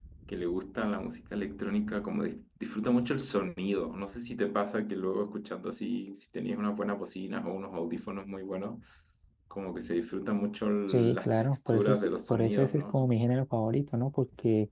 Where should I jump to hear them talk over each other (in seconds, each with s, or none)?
10.9 s